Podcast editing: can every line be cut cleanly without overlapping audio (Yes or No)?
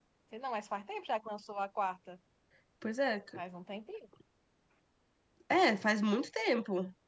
Yes